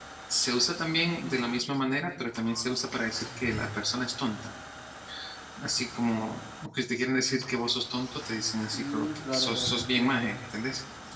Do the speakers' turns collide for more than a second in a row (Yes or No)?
Yes